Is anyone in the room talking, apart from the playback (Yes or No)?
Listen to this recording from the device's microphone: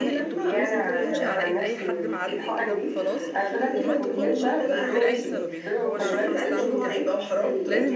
Yes